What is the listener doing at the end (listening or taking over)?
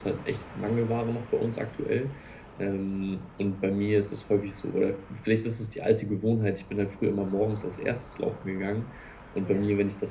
listening